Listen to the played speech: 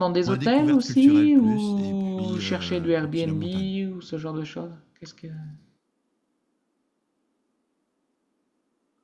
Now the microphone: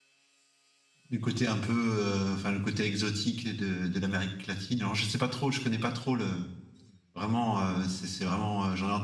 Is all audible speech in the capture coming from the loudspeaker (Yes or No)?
No